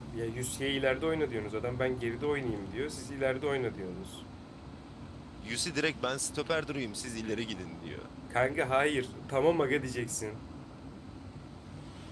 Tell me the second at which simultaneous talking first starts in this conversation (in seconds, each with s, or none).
none